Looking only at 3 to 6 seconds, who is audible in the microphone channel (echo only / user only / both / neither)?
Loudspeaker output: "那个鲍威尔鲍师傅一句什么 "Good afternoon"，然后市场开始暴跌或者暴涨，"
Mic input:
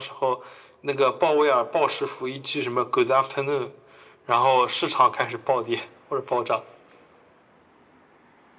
echo only